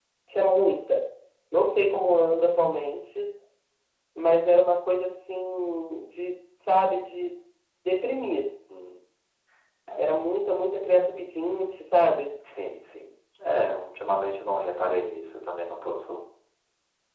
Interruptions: none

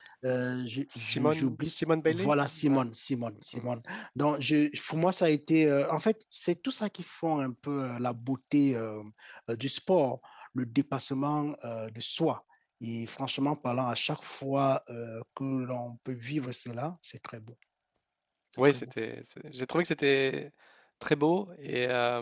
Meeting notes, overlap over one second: present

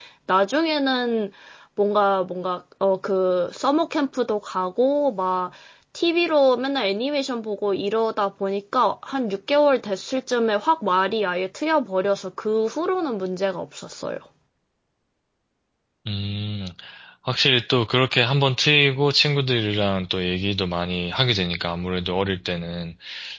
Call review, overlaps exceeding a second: none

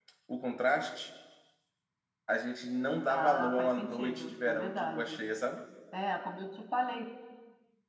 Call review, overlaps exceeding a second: present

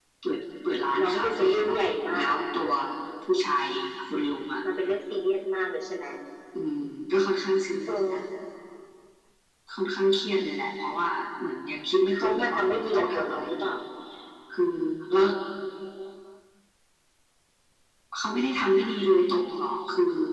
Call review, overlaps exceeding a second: present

